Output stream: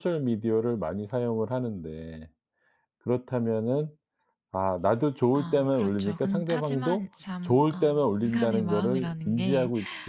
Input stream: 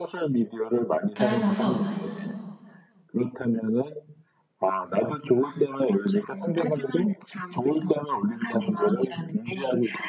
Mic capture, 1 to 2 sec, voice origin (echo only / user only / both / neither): both